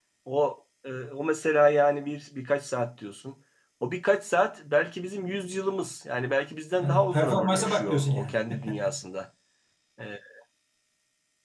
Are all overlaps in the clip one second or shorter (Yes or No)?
No